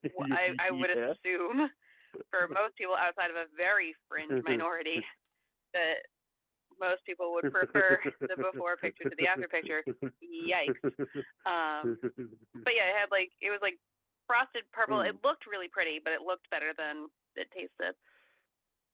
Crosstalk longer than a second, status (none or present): present